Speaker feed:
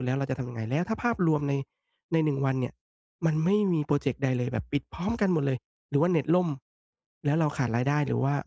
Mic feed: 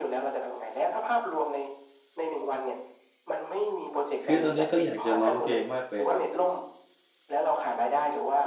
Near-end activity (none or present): present